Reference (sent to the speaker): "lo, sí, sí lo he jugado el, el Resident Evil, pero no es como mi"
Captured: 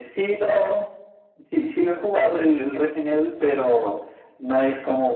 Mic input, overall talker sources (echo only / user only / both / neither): echo only